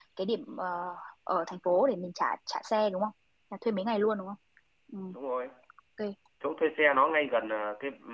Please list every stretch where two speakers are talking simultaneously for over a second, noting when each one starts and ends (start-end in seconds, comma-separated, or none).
none